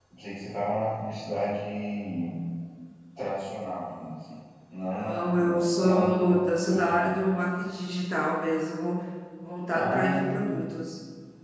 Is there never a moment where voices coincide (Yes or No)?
No